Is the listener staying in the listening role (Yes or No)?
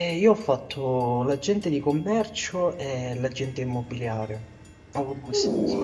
No